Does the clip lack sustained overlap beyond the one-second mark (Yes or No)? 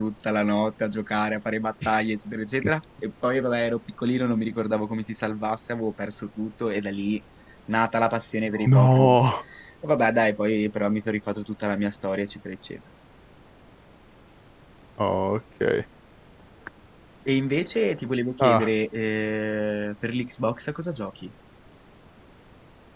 Yes